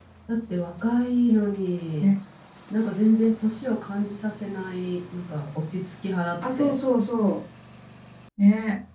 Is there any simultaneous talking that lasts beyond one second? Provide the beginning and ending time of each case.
none

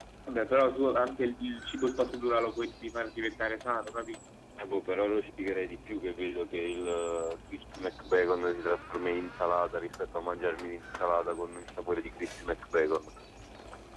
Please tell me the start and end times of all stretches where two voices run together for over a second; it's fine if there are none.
none

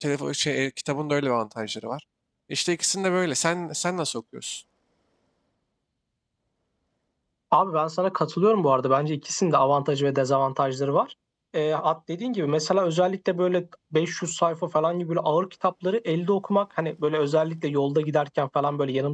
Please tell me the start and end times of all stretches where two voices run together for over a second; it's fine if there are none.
none

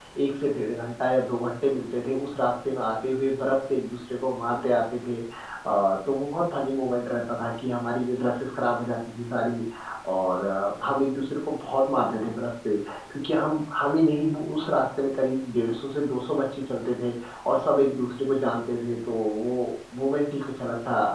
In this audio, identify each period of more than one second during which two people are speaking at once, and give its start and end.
none

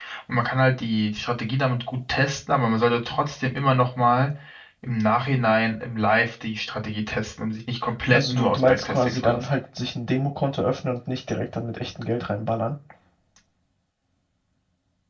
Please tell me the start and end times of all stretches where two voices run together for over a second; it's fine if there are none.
8.1-9.4

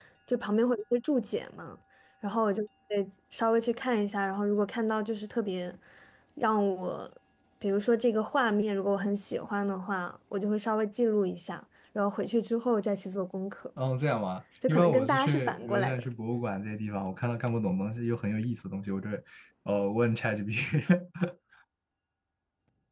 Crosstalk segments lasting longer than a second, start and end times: 14.7-16.1

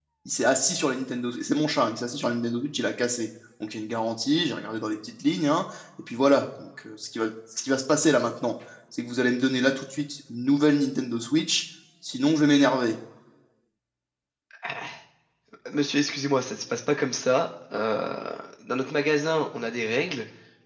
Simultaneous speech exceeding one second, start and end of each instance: none

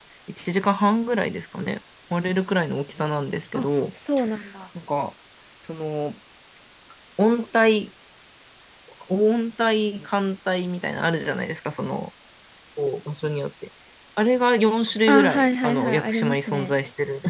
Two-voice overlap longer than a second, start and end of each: 15.1-16.7

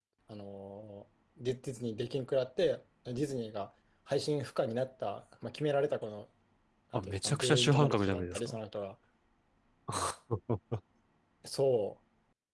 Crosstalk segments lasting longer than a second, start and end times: 6.9-8.6

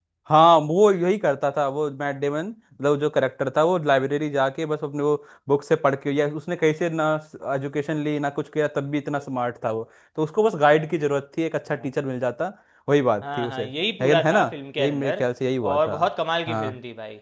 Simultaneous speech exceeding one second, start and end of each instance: none

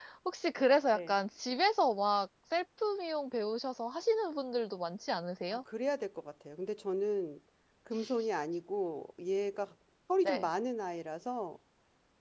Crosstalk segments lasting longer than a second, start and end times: none

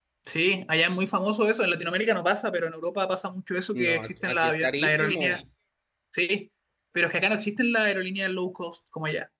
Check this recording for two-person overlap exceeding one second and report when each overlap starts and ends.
3.7-5.4

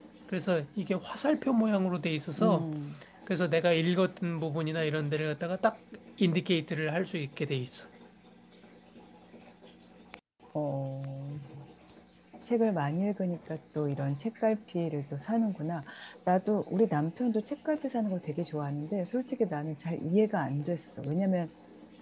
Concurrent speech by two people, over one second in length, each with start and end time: none

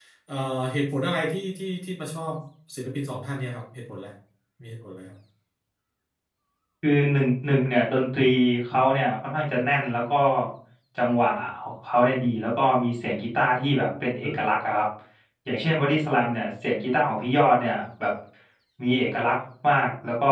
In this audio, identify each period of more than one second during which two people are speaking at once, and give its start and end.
none

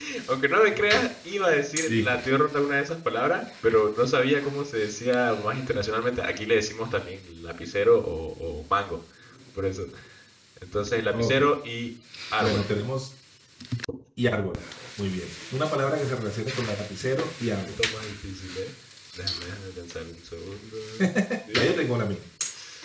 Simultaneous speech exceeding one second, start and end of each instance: none

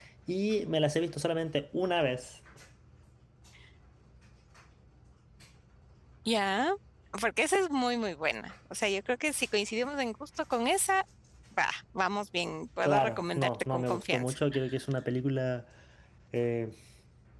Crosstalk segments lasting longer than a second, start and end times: 12.8-14.3

